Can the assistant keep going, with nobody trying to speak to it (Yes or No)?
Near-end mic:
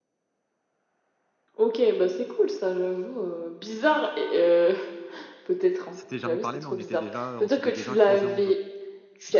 No